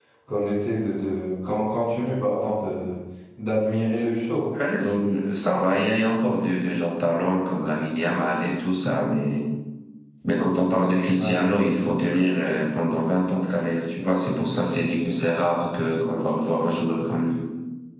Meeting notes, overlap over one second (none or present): none